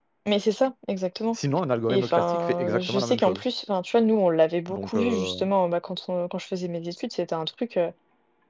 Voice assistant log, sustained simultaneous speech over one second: present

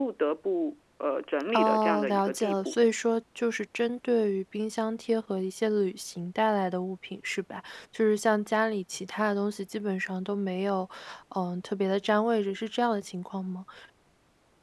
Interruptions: present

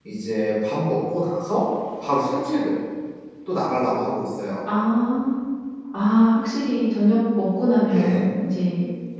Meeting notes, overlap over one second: none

